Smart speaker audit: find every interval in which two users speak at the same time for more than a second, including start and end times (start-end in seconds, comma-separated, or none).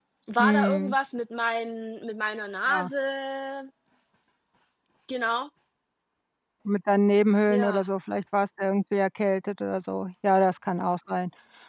none